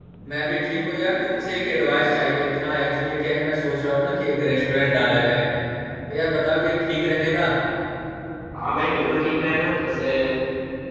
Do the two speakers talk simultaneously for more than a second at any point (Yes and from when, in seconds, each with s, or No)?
No